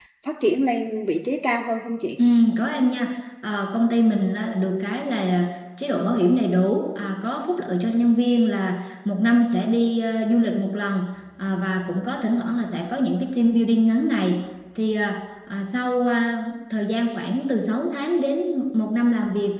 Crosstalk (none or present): none